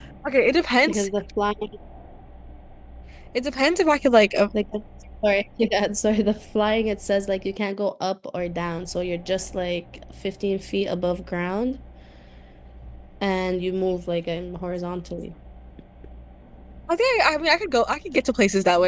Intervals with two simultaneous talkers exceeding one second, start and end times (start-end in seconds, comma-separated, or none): none